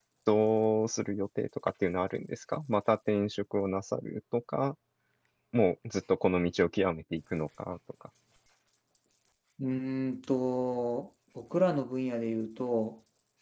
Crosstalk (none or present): none